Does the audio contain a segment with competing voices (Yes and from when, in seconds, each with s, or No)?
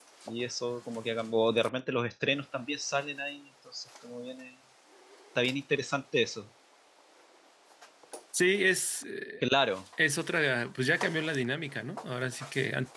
No